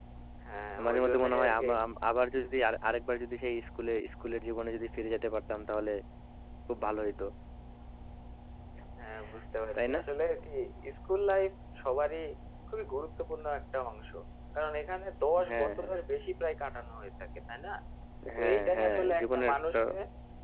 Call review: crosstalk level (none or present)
present